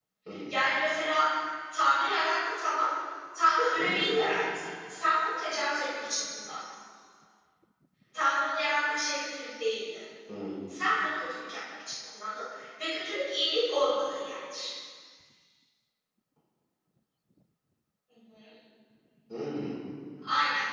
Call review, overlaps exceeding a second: none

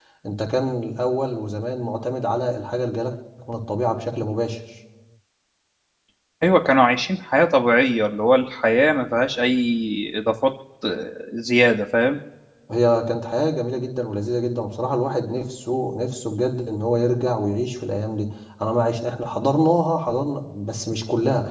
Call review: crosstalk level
none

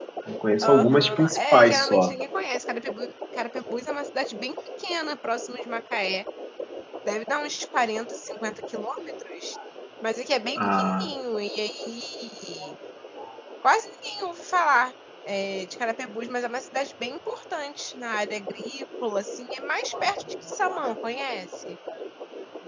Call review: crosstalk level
present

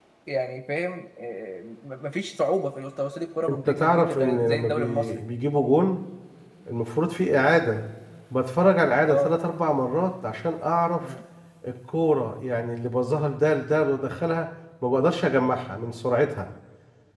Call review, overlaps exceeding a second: present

